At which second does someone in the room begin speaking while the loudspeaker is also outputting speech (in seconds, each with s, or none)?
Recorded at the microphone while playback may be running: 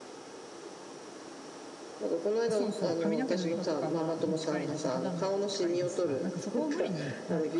2.5 s